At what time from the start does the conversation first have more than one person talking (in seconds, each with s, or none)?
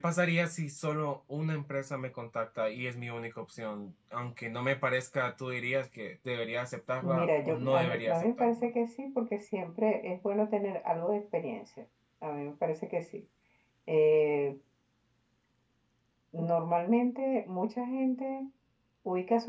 7.0 s